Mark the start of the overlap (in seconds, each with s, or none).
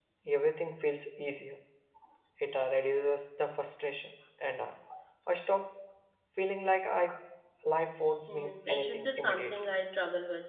8.3 s